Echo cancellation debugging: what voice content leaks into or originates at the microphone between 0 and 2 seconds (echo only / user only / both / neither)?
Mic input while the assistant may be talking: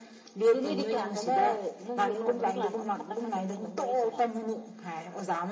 echo only